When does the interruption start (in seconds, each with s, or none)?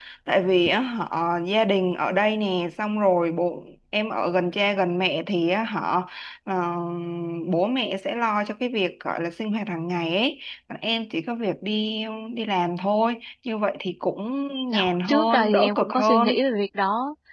14.7 s